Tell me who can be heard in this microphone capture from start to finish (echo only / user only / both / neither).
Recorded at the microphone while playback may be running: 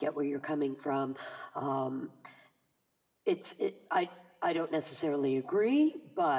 user only